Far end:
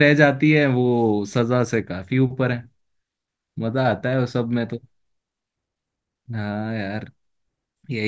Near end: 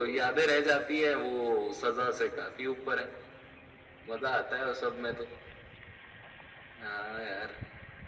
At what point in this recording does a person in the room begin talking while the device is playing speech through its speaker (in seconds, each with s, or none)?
none